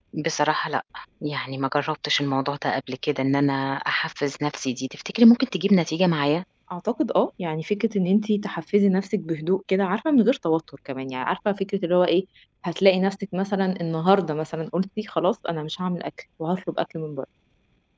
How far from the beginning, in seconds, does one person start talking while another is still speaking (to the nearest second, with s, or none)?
none